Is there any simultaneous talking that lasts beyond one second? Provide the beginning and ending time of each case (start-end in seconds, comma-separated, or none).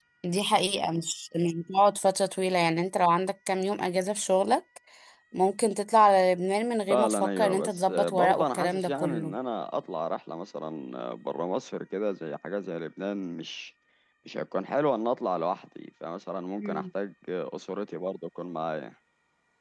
6.9-9.3